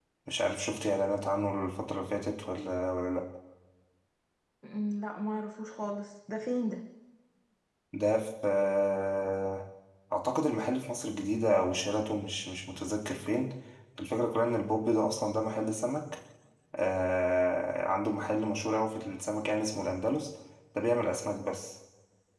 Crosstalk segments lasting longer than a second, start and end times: none

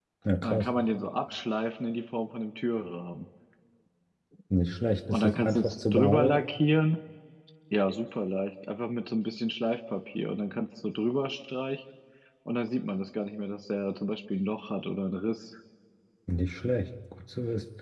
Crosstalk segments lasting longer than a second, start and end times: 5.1-6.4

